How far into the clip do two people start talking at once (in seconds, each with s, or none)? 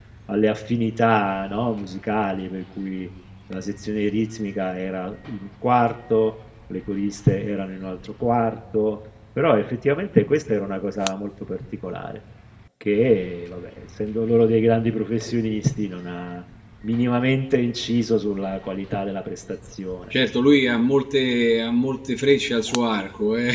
none